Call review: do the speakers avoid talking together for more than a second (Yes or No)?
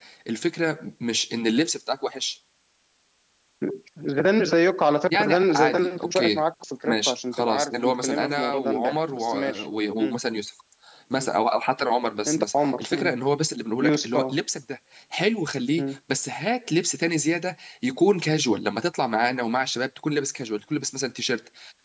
No